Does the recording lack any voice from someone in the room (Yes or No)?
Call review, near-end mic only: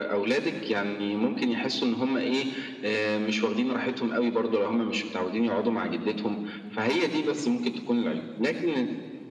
Yes